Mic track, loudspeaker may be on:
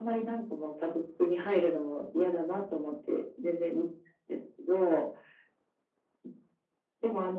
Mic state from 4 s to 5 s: echo only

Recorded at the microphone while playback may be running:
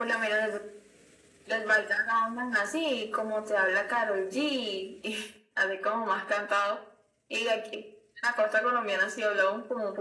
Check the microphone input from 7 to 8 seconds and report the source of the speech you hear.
echo only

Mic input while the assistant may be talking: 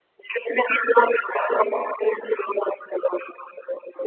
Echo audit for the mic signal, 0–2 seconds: echo only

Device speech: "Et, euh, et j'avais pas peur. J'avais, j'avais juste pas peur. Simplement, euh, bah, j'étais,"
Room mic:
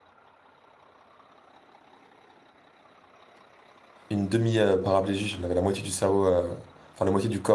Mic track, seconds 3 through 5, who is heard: user only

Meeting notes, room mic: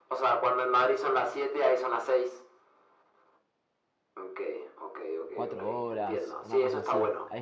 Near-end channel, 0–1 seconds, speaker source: echo only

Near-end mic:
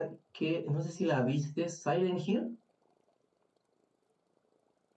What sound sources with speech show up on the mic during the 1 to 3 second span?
user only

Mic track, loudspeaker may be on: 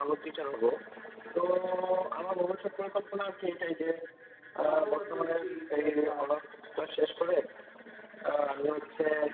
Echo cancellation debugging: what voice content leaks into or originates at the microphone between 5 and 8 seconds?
both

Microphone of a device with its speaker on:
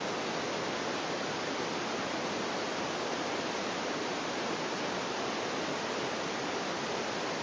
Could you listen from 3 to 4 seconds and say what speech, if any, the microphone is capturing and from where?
neither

